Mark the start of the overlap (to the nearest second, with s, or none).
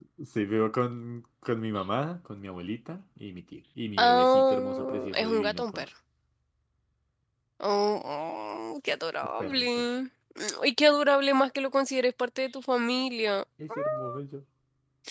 4 s